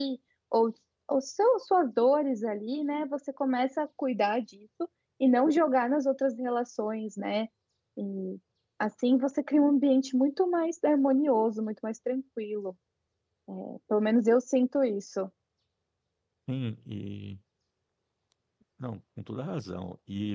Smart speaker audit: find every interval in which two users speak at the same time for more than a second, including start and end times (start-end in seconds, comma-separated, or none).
none